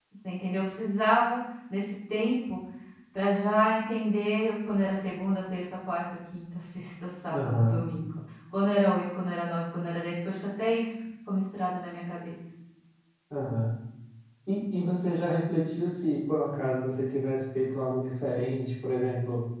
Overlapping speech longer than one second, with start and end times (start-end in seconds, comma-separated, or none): none